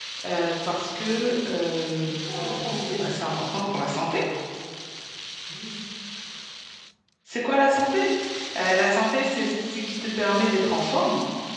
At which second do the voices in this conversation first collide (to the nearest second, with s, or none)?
2 s